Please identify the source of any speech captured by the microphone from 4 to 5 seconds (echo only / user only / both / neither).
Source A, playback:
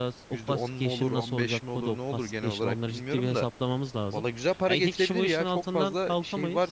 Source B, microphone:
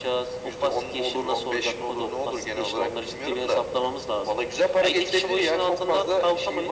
echo only